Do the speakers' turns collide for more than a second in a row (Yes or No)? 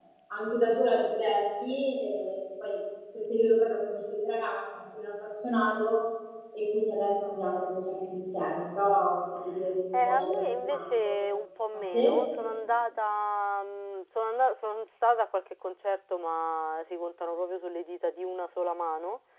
Yes